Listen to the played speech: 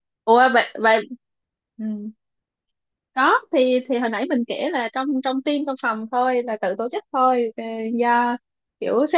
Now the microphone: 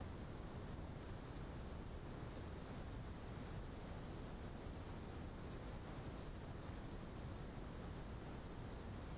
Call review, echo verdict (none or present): none